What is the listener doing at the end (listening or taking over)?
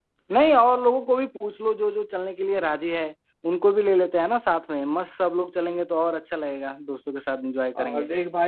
taking over